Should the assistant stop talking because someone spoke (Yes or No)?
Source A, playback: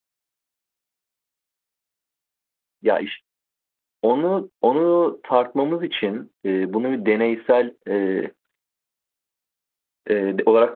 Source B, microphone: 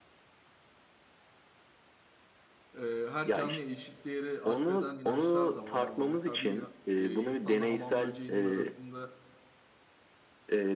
Yes